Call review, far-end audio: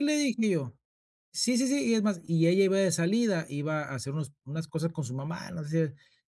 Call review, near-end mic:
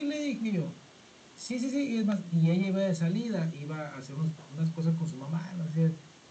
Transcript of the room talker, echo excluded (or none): none